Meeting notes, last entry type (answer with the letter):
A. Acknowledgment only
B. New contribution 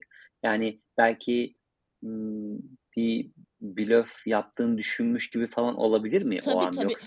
B